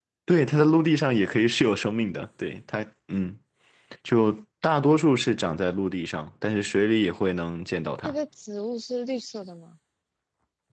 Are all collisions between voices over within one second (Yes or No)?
Yes